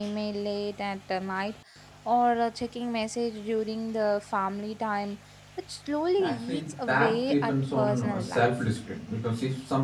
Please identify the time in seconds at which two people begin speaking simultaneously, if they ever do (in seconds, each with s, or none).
6.2 s